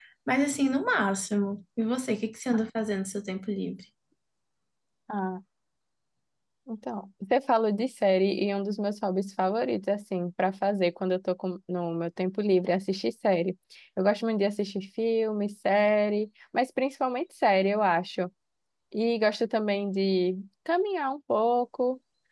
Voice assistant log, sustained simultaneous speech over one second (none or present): none